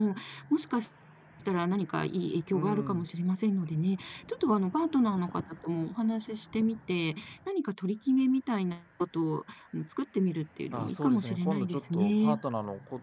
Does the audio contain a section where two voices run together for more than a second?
Yes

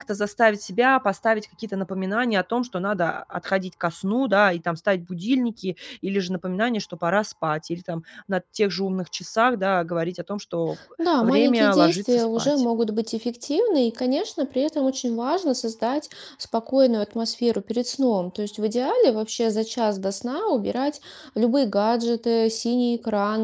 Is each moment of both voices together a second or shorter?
No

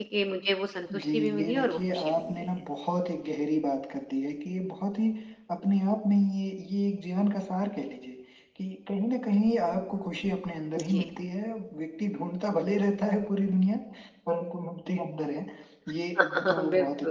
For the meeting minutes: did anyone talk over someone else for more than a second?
Yes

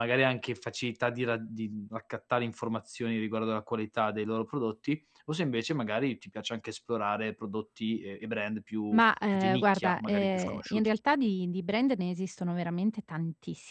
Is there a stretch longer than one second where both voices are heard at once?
Yes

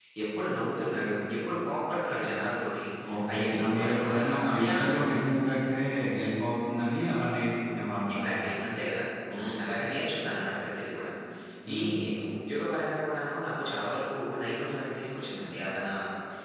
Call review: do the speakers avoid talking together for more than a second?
No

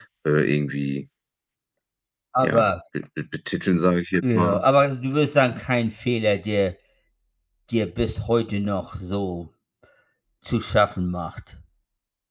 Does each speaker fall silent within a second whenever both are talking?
Yes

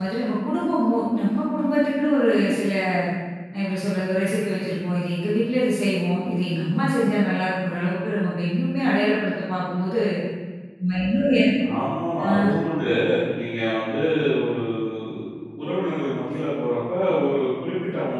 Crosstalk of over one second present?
No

